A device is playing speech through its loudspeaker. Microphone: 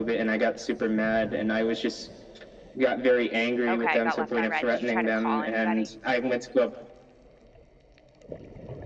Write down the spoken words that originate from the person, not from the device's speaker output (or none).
Okay, got left on red. Did you try to call anybody?